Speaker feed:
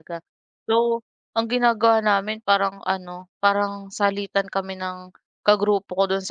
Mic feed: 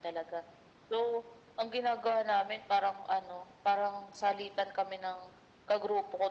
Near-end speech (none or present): none